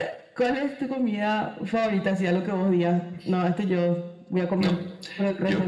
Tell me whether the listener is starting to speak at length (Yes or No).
Yes